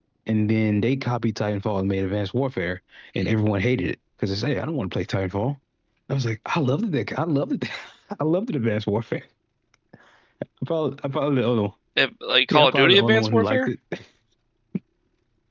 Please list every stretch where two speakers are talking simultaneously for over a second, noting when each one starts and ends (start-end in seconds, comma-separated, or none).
12.5-13.7